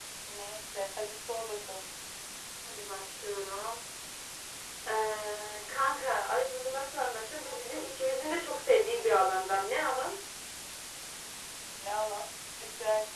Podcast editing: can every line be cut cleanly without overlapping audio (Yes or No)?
Yes